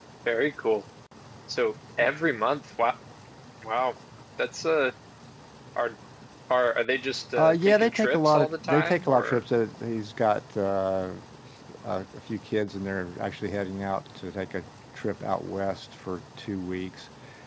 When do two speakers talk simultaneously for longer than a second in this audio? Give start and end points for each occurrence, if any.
7.4-9.4

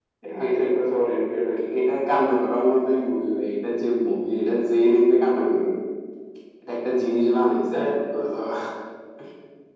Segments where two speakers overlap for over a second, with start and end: none

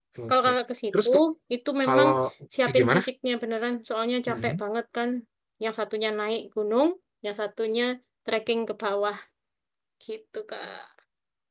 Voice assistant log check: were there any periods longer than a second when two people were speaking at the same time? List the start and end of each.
none

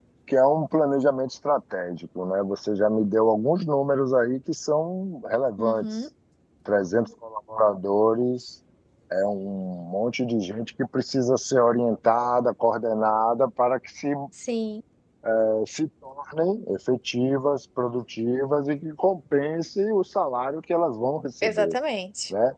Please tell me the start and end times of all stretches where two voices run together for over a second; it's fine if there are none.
none

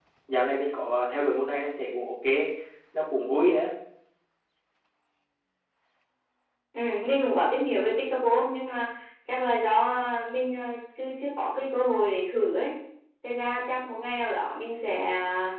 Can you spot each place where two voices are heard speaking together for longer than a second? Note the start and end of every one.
none

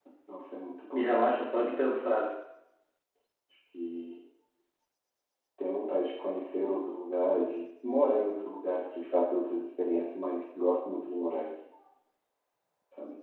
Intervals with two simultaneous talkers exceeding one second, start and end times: 0.9-2.2

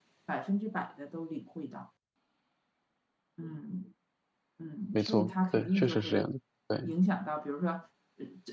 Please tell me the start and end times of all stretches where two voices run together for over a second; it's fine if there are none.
4.9-6.3

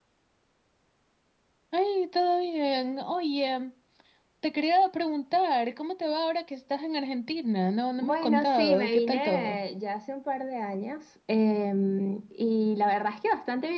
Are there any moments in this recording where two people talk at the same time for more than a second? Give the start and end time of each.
8.0-9.6

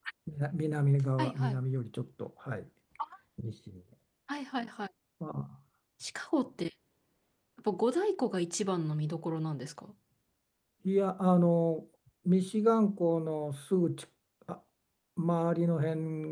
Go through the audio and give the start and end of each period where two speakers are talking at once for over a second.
none

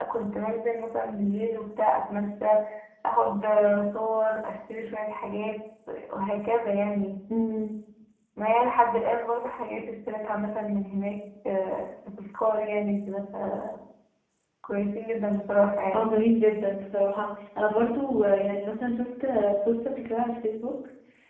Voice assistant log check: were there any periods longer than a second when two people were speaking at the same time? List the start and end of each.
none

